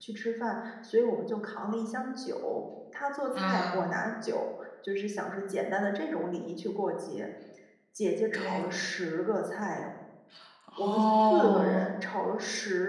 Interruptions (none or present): present